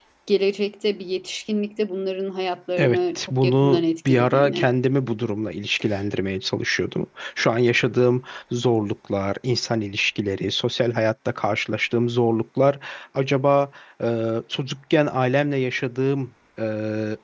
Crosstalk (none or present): present